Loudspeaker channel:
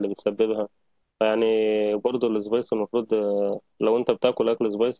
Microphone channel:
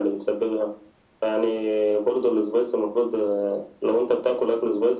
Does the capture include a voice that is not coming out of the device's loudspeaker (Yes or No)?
No